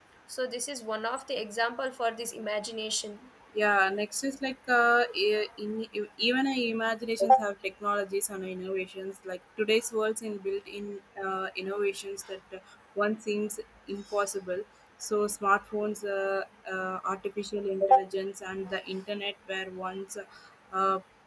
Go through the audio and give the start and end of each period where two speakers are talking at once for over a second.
none

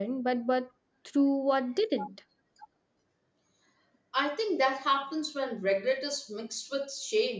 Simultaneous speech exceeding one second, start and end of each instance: none

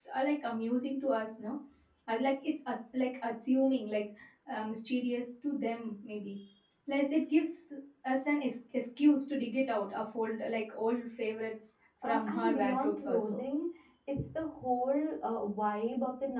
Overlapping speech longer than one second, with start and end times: 12.0-13.4

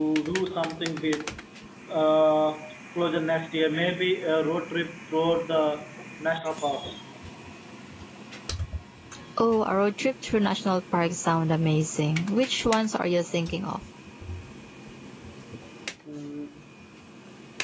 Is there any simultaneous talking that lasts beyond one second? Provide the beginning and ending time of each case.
none

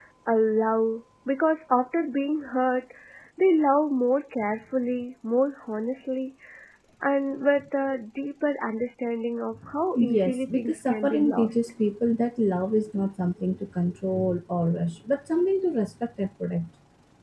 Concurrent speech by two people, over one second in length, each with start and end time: 9.9-11.6

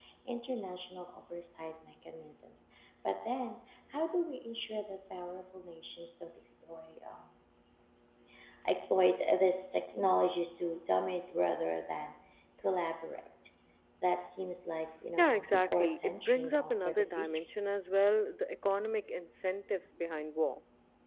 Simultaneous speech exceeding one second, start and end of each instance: 15.2-17.3

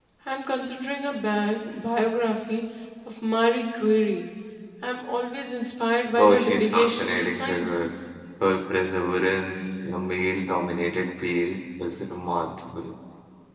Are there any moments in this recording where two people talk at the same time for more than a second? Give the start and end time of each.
6.2-7.7

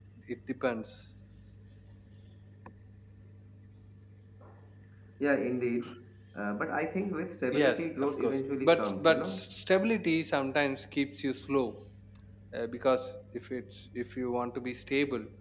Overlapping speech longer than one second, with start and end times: 7.6-9.3

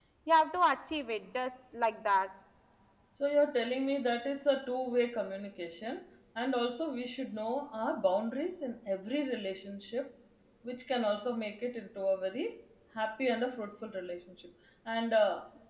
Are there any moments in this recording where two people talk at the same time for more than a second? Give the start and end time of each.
none

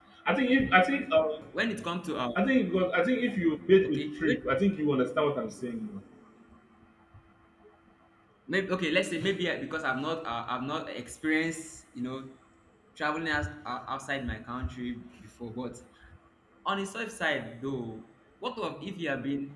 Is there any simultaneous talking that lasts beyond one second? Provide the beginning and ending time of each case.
none

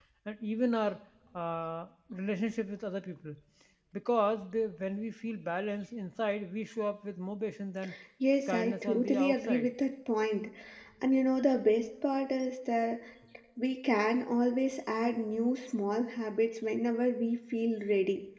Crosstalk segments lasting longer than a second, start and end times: 8.5-9.7

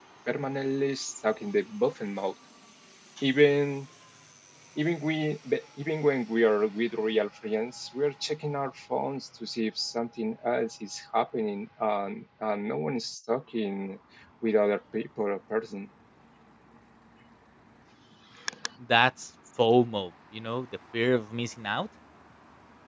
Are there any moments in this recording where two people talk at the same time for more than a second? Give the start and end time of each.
none

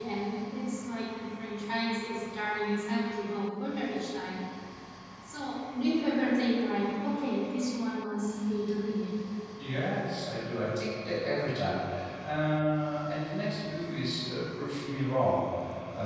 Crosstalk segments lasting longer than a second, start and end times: none

